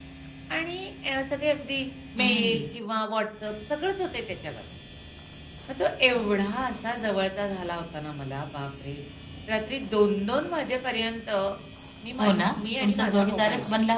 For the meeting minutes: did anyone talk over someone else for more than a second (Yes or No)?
Yes